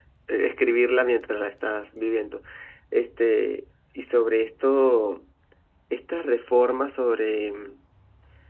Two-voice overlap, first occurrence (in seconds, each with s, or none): none